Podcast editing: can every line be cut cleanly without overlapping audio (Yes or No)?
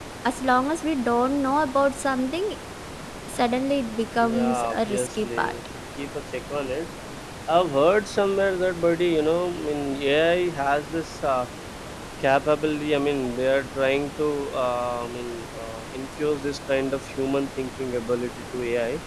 No